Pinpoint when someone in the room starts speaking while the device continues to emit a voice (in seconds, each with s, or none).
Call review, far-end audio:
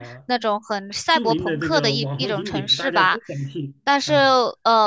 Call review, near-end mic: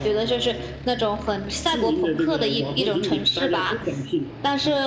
none